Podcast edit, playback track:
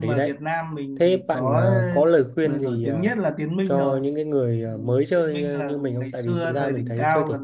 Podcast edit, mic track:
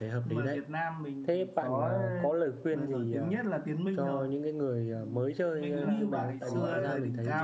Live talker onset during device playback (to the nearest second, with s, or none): 6 s